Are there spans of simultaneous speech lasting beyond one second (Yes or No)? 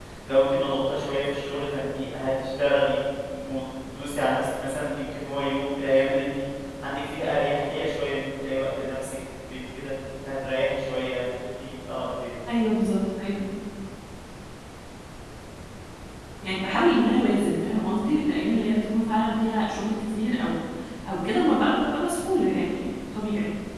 No